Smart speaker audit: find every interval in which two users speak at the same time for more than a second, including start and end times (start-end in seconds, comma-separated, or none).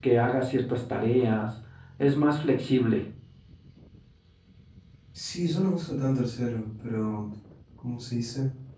none